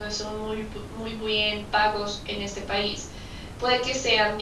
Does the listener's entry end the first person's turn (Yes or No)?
No